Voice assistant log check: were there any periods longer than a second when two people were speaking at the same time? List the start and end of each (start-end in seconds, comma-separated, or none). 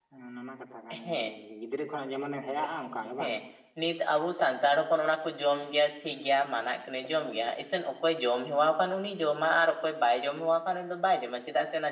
none